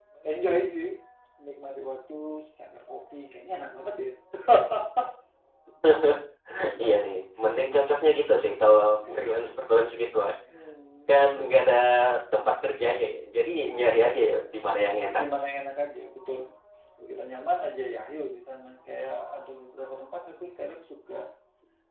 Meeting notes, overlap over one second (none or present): none